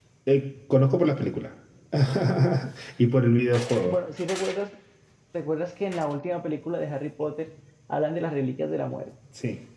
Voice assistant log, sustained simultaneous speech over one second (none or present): none